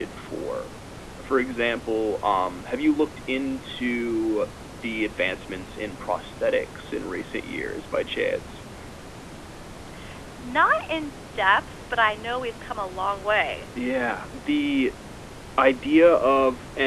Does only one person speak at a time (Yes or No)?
Yes